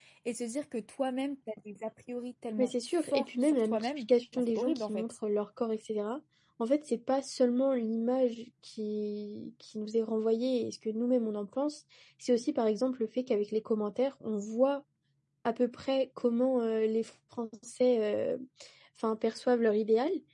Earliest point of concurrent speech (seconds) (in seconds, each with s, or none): 2.6 s